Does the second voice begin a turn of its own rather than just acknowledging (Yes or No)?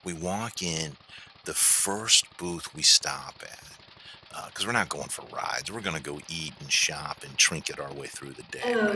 Yes